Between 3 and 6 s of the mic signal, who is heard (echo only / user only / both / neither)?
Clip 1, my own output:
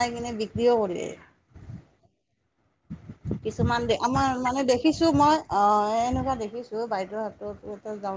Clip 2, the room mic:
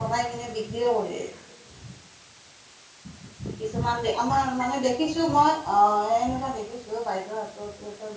echo only